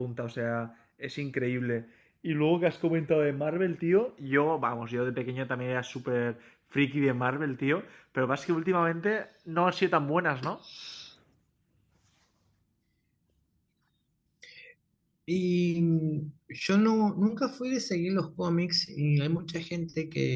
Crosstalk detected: No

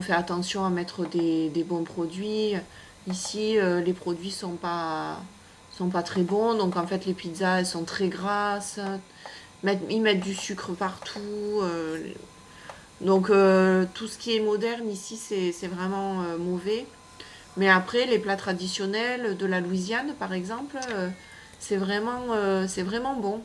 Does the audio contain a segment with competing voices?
No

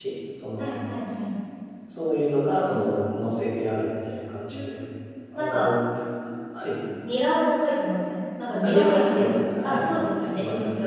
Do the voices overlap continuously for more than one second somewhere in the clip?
Yes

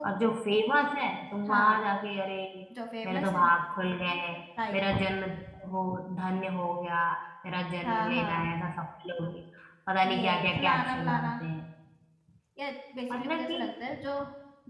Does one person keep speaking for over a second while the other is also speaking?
Yes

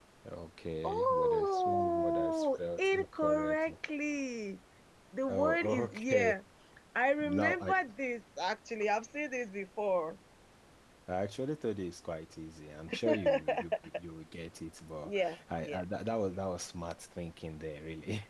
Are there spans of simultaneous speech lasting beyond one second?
Yes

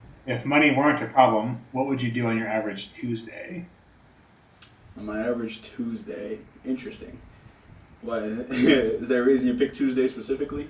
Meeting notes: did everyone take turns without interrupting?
Yes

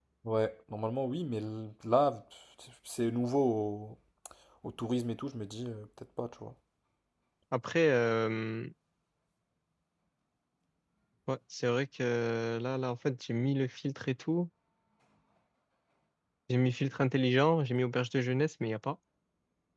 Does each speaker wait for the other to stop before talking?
Yes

